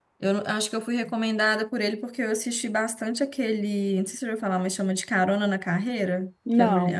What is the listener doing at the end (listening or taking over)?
listening